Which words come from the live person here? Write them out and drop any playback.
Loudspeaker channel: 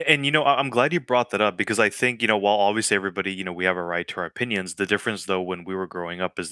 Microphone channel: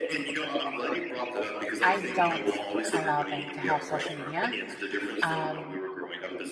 I don't allow them to have social media. Um,

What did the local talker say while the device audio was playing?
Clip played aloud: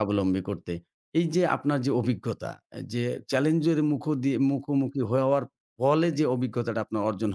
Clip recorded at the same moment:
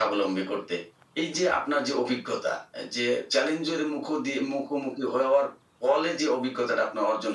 none

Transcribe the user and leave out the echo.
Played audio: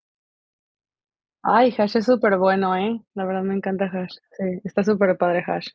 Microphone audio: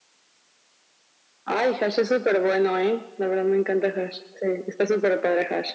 none

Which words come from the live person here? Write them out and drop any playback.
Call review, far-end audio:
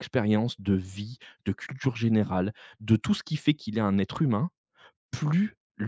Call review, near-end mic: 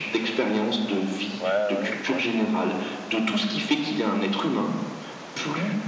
ouais, ouais, ouais, c'est vrai.

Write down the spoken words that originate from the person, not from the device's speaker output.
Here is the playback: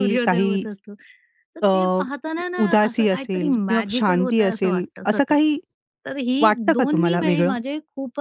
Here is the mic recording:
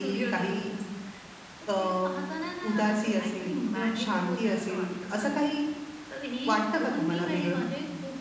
none

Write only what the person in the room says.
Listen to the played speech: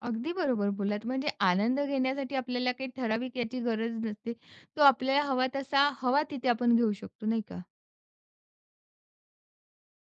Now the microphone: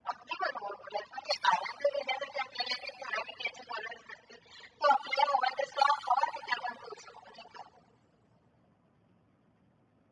none

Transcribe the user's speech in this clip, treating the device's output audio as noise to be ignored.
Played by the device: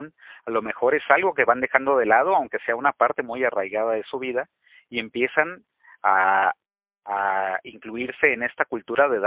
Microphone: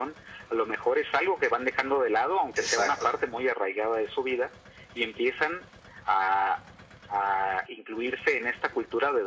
Exacto.

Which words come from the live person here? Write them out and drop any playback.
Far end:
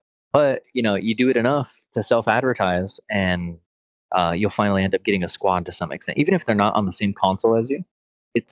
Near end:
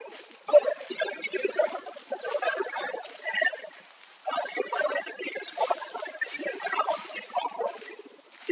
none

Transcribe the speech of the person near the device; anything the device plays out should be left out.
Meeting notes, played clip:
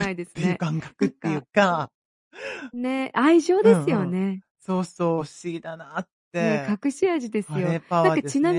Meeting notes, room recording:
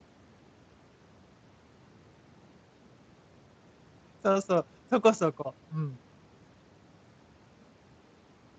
そうそう、そこそこ。うん。

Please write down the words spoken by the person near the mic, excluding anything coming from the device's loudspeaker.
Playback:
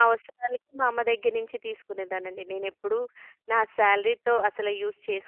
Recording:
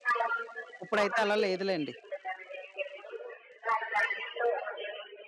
ఇప్పుడైతే అలా లేదులెండి.

